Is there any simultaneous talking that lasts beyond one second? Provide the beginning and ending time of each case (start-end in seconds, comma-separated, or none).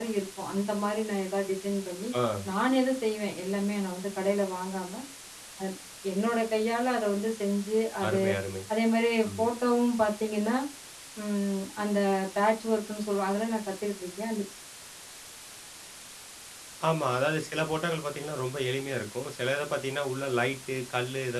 none